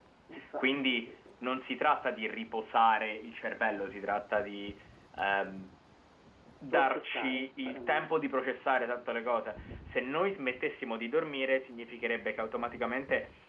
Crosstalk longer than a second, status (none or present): present